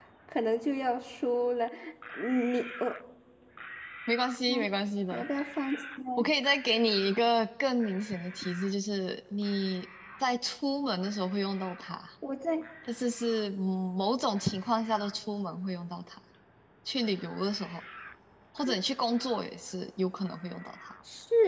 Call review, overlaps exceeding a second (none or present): none